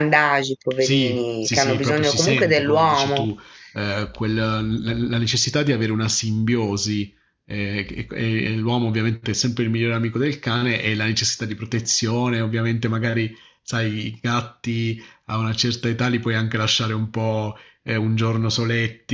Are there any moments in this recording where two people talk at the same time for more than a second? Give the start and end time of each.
0.8-3.3

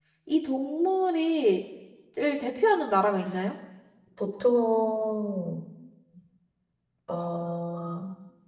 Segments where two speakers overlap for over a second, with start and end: none

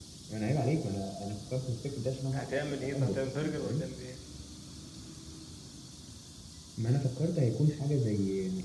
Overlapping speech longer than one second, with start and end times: 2.4-3.8

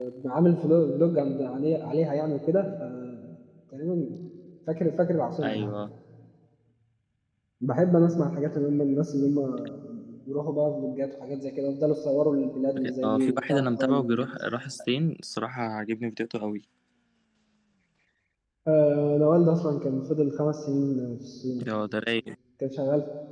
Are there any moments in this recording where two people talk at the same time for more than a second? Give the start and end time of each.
13.0-14.3

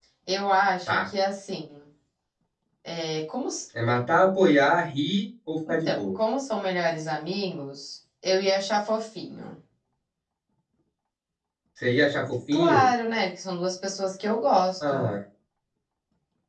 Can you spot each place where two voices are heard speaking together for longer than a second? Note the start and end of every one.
none

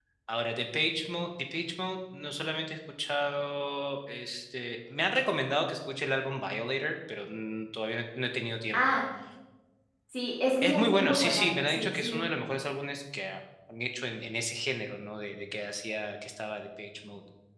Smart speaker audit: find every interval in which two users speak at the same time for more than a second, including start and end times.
10.6-12.2

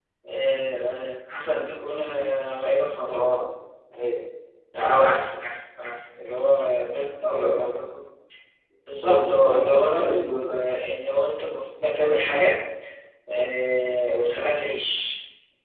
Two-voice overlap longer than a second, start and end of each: 9.0-10.6

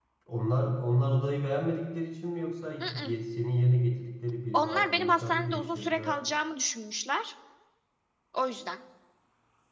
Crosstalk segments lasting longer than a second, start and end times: 4.5-6.2

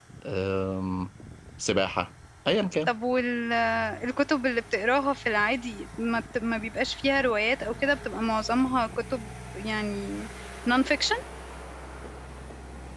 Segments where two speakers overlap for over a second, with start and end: none

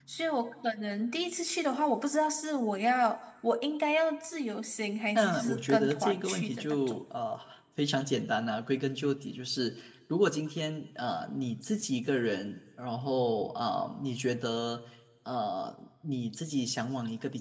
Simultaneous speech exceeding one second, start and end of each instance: 5.2-7.0

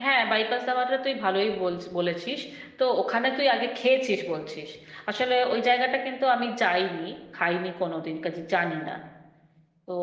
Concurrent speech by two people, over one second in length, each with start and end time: none

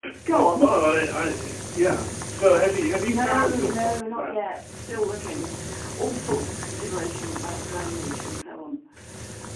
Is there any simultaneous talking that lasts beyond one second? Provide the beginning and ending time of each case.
3.0-4.5

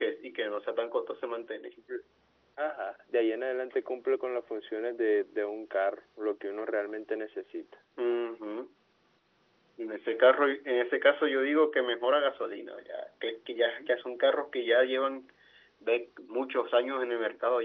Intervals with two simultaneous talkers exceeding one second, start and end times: none

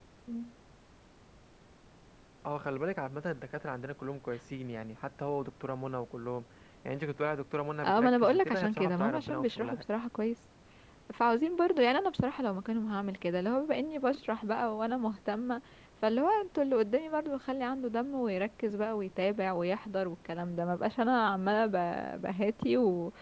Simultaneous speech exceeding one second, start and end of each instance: 7.8-9.8

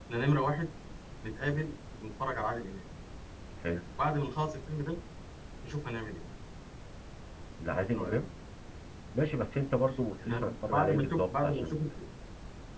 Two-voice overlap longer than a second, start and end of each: 10.3-11.8

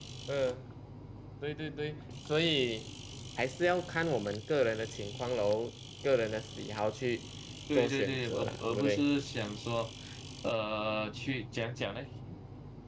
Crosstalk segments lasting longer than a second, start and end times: 7.7-9.1

